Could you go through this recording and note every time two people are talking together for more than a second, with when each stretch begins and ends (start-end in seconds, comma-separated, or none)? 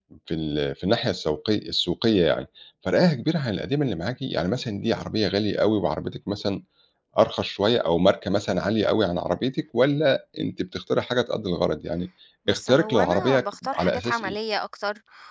12.5-14.3